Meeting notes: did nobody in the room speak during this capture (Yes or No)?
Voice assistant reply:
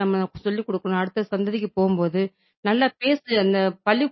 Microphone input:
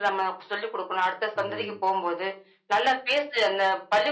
No